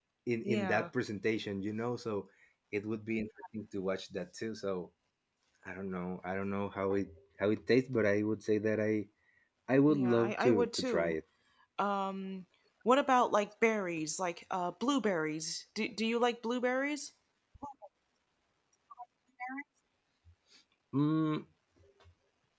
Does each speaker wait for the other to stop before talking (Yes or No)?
No